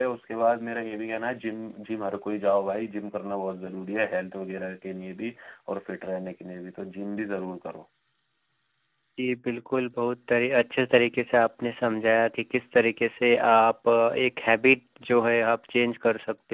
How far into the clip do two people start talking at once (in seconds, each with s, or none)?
none